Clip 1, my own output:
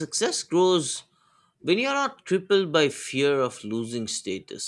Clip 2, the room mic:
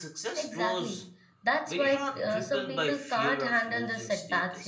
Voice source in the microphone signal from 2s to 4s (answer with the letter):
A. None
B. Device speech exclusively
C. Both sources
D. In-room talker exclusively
C